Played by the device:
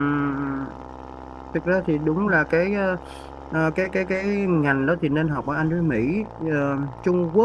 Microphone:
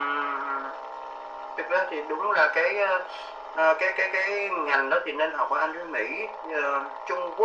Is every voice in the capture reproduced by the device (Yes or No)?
Yes